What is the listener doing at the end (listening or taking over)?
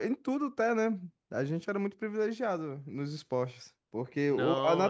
listening